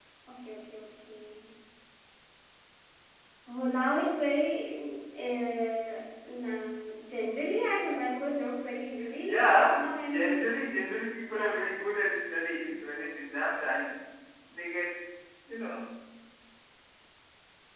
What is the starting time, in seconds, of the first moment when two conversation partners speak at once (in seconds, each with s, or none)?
9.2 s